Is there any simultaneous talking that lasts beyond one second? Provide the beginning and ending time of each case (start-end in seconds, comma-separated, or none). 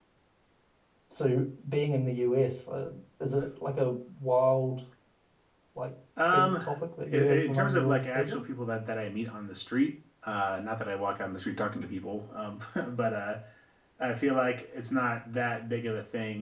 7.1-8.4